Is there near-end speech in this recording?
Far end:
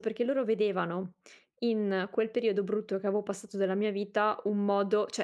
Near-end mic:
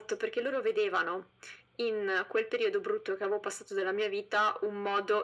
No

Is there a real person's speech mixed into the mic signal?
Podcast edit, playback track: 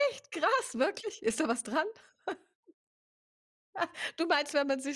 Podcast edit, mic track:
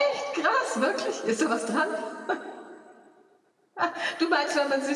No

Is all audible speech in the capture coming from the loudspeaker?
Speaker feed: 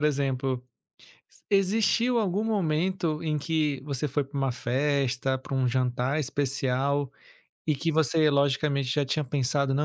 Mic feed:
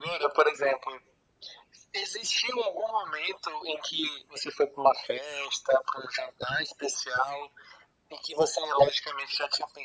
Yes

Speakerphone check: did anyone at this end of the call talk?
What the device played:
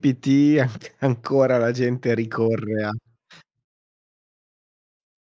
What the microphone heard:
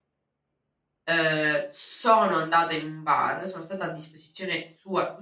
Yes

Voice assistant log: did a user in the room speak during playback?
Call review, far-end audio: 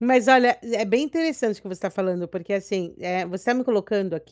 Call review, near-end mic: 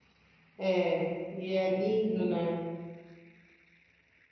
Yes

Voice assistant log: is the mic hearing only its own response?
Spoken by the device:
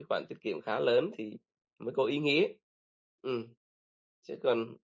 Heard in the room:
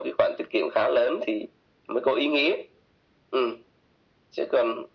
Yes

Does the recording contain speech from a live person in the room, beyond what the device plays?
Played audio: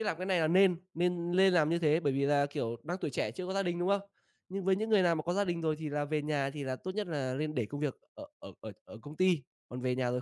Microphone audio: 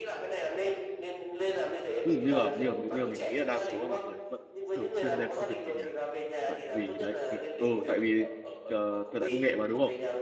Yes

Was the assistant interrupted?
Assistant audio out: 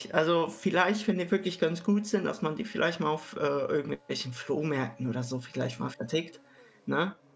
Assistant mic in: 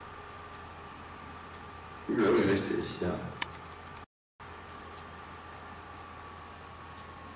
Yes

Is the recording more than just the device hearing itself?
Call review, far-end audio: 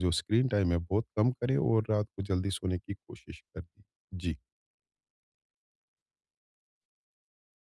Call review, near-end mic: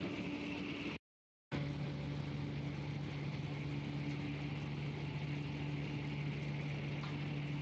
No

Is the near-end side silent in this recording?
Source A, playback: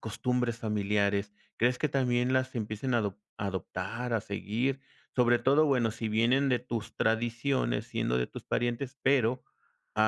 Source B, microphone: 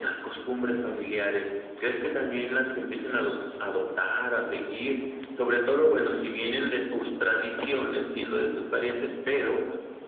Yes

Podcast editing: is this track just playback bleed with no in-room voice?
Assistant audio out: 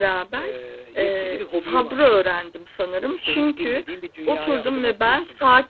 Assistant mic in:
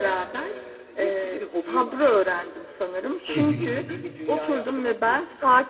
No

